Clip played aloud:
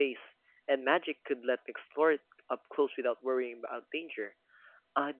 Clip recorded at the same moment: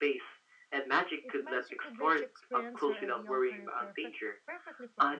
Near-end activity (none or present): present